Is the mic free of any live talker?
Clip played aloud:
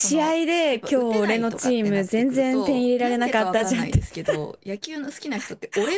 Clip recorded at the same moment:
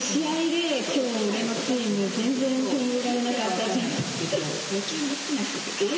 Yes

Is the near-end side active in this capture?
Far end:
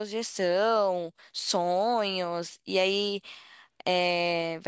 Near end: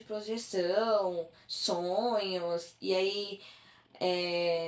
No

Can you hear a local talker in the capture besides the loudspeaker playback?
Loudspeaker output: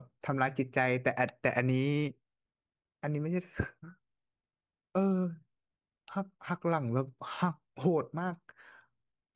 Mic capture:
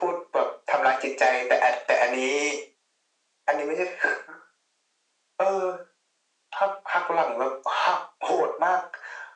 No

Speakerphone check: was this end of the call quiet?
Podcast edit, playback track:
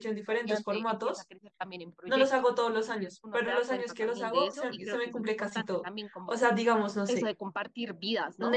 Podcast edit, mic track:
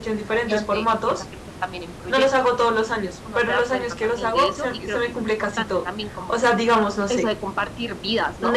Yes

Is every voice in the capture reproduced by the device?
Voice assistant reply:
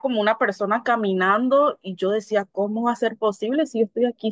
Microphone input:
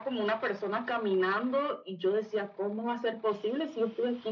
Yes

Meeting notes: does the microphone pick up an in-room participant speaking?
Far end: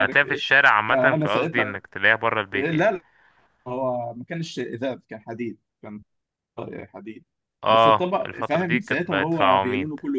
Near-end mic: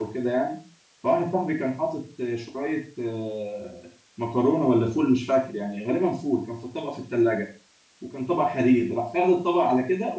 Yes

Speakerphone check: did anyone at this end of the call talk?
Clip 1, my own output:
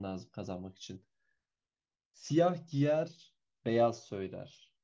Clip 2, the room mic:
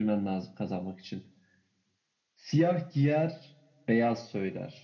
No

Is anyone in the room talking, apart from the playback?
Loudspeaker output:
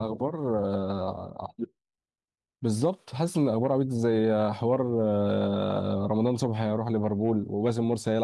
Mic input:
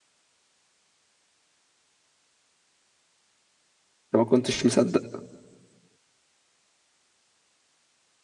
Yes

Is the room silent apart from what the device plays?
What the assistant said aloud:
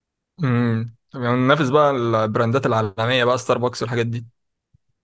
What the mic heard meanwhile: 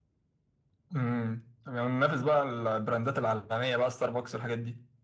Yes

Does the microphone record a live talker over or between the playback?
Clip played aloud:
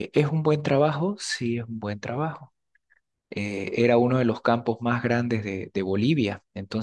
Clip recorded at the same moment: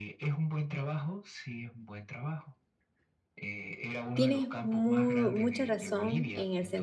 Yes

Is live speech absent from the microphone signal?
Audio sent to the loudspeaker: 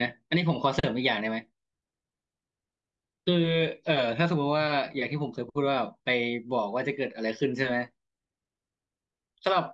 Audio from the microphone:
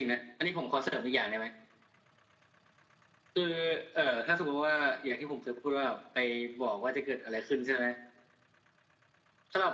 Yes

